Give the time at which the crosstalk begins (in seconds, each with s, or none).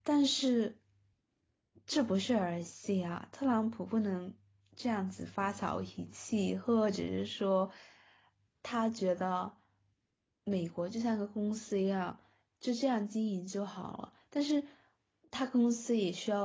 none